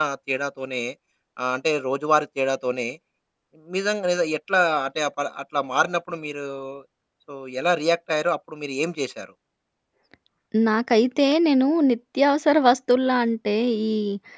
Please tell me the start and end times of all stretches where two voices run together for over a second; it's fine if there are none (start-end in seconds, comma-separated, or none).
none